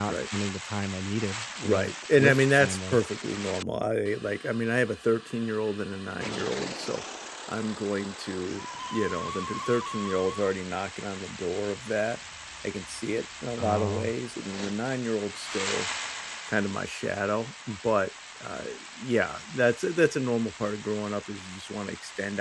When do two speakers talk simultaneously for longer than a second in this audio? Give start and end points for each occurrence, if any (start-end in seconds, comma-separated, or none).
1.6-3.0